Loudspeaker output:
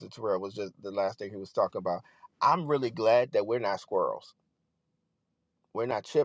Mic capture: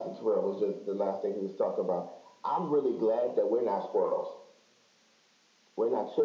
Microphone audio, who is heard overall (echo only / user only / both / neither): echo only